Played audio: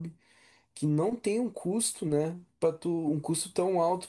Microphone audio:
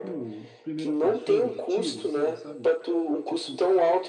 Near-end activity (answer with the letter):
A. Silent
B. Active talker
B